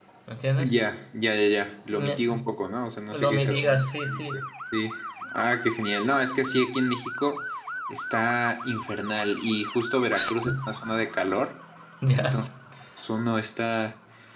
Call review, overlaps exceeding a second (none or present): present